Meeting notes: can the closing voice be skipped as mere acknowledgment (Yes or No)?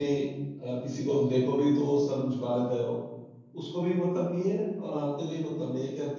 Yes